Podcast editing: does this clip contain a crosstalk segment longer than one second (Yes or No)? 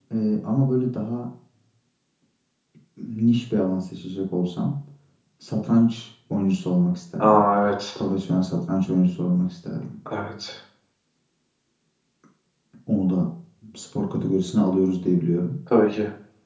No